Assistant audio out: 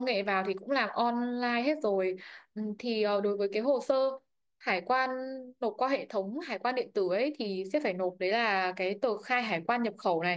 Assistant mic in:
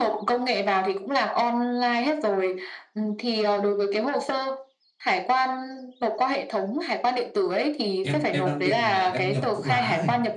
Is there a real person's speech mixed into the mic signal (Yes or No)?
Yes